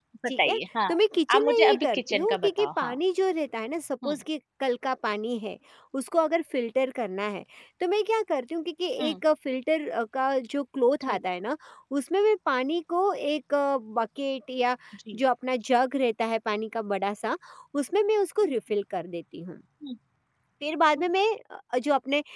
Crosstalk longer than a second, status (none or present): present